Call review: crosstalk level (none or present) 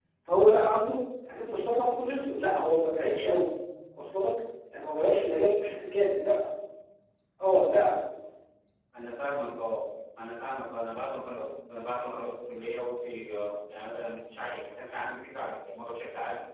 none